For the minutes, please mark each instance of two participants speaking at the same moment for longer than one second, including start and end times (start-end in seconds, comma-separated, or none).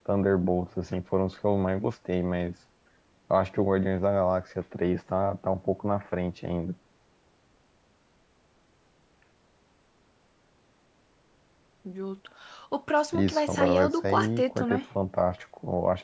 13.1-14.8